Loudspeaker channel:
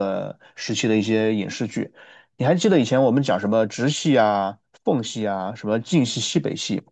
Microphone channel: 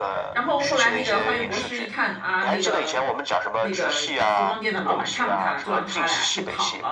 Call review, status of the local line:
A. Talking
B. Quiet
A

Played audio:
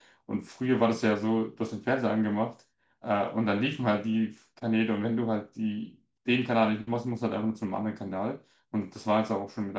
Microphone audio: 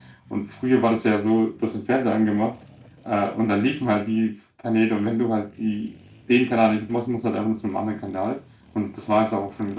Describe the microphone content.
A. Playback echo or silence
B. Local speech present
A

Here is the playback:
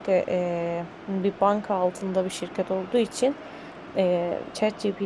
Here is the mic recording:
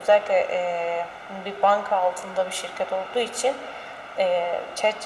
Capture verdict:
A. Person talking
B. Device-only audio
B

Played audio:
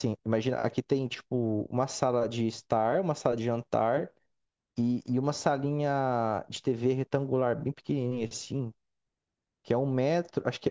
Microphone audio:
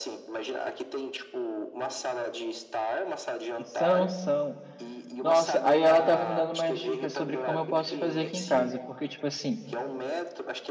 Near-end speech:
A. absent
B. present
B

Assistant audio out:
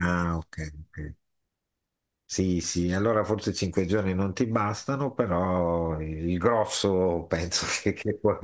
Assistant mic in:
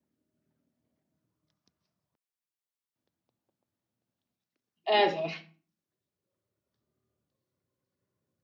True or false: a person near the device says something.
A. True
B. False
A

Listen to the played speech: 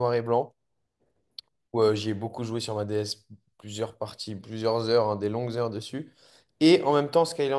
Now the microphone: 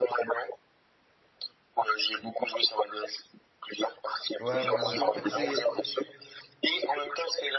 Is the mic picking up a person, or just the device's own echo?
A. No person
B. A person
B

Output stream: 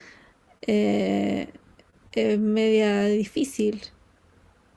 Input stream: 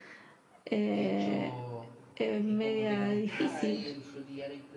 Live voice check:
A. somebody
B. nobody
A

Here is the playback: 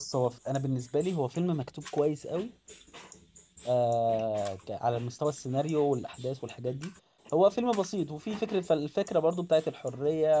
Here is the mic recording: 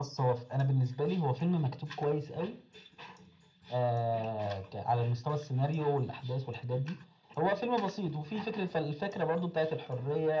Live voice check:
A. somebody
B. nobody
B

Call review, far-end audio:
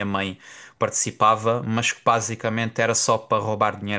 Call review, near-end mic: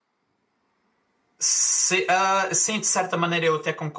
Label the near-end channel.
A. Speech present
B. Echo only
A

